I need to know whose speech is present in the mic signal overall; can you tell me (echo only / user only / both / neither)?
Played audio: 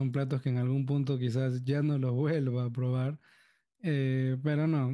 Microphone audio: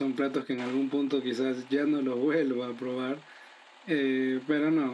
echo only